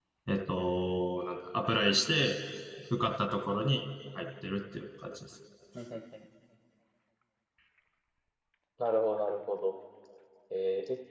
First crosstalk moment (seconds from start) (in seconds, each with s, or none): none